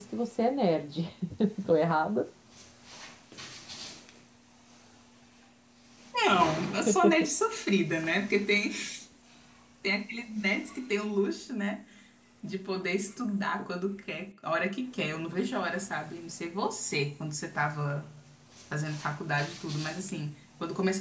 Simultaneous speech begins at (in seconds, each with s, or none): none